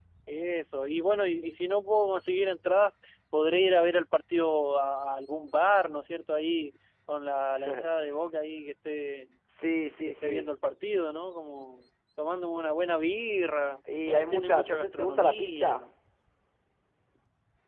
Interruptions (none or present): present